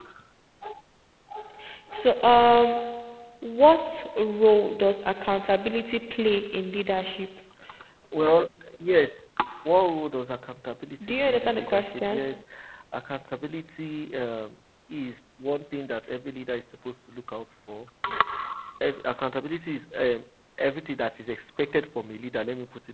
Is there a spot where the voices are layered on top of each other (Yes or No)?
Yes